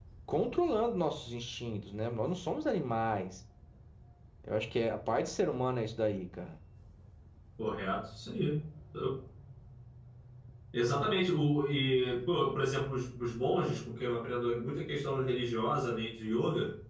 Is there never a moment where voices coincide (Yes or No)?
Yes